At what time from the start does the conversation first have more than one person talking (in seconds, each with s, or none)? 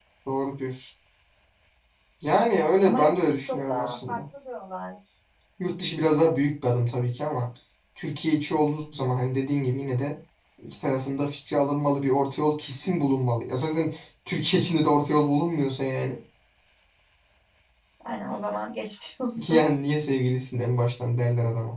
2.8 s